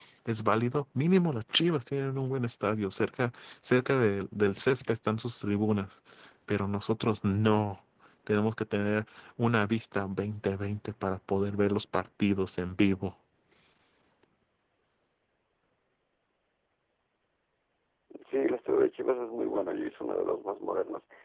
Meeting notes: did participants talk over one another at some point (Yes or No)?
No